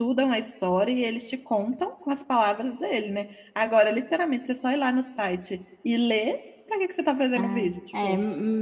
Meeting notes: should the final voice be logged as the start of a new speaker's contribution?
Yes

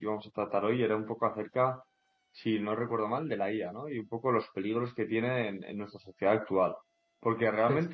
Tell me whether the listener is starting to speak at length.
No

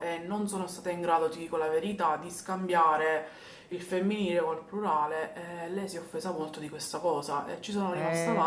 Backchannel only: No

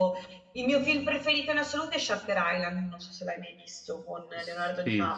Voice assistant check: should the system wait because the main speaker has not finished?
No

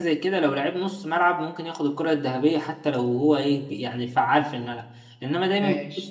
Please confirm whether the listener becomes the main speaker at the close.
No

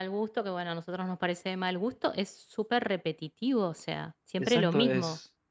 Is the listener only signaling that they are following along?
No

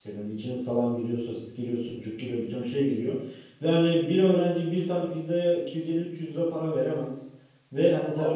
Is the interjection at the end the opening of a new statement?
No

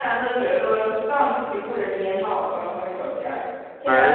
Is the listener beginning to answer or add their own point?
No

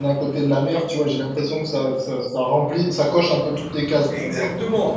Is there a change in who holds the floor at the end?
Yes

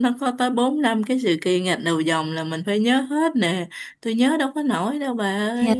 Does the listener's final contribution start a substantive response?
Yes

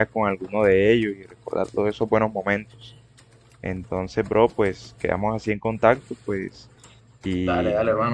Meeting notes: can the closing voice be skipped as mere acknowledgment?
No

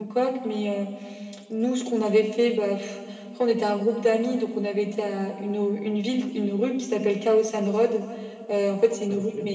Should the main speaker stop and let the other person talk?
No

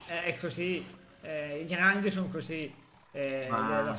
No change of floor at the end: Yes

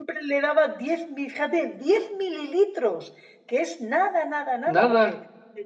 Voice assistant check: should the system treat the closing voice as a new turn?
No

